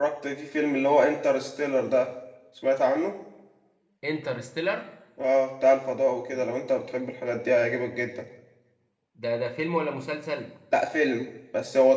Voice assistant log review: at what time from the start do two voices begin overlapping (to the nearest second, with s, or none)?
none